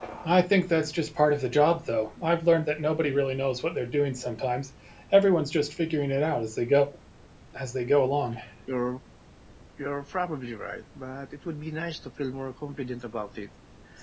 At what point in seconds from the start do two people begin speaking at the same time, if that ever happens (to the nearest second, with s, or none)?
none